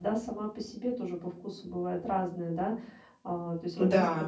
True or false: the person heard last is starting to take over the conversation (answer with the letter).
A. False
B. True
A